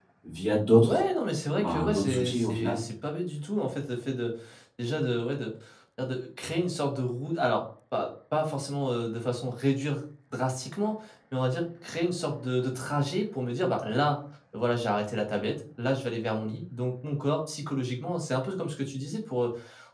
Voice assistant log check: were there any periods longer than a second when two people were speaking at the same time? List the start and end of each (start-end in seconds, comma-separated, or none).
1.6-2.8